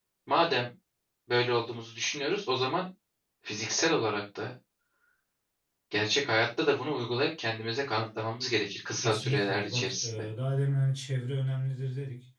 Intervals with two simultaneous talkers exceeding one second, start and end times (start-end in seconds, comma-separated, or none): 9.0-10.3